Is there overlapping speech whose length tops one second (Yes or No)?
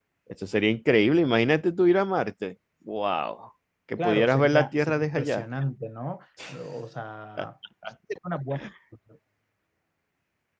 Yes